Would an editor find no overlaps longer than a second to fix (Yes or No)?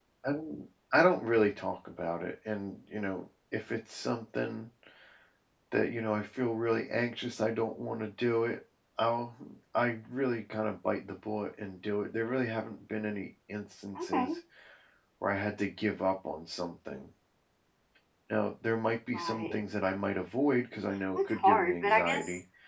No